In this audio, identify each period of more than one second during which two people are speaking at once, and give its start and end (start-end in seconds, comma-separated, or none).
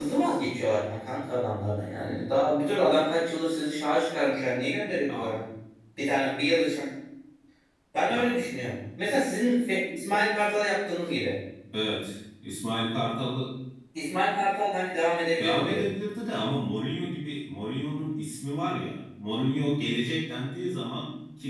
none